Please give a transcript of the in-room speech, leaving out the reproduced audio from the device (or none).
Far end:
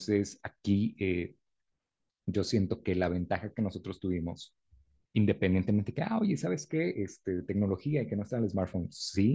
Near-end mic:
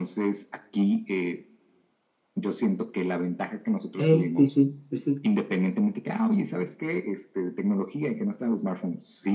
Ey, sí, sí, pues sí,